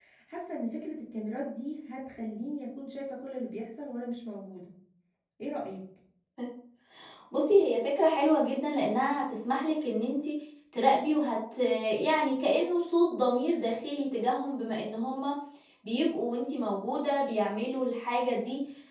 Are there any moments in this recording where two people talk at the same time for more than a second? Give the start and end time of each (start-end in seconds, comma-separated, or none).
none